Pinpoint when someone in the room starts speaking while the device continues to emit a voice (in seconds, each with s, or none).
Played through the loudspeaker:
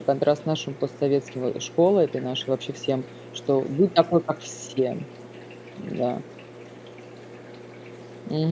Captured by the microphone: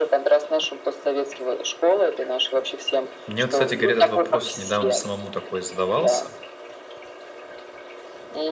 3.3 s